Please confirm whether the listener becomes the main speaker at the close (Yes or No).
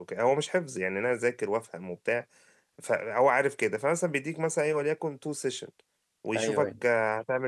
No